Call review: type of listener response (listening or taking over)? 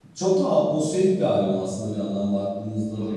listening